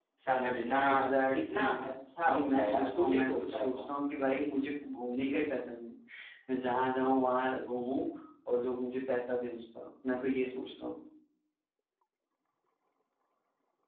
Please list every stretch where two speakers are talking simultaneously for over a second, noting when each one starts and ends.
2.3-3.9

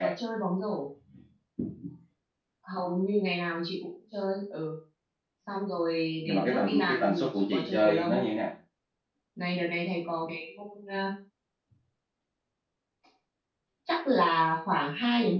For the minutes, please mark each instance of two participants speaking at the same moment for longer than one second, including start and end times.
6.3-8.1

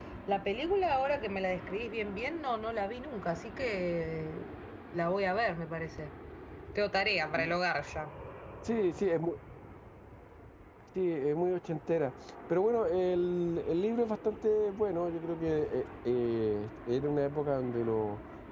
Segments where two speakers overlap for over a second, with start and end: none

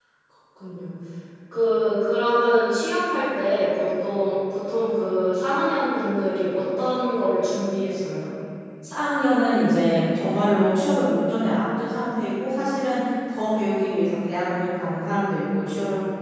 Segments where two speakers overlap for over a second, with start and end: none

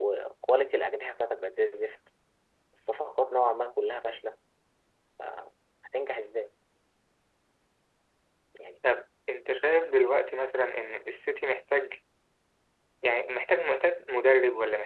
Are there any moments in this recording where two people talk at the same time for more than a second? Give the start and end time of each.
none

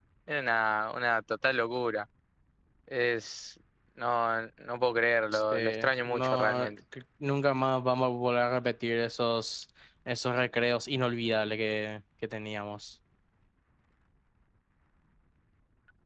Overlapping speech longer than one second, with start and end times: 5.3-6.7

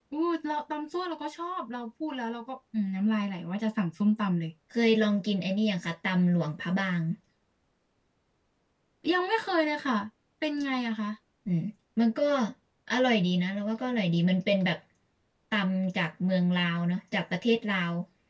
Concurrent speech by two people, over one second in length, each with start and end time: none

